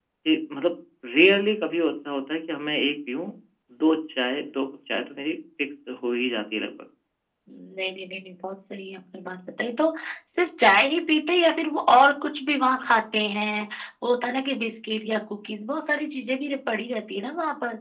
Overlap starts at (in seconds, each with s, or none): none